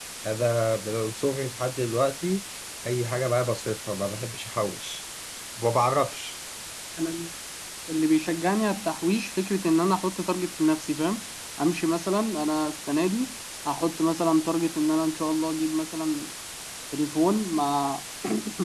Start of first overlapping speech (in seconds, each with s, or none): none